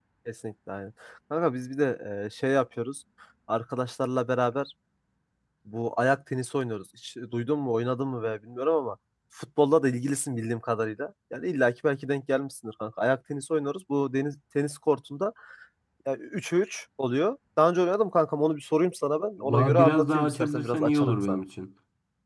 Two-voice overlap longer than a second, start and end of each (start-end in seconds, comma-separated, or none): 19.4-21.4